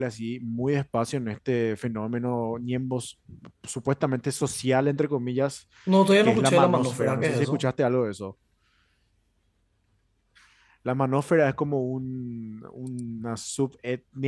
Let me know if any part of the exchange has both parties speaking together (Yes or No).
Yes